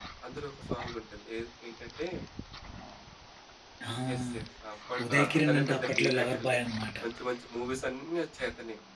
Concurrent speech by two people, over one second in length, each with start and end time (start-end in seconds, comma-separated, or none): 5.0-6.6